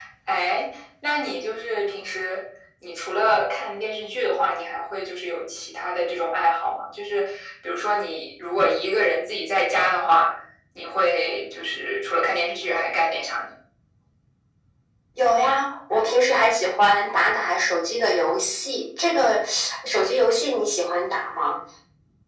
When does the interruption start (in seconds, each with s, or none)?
none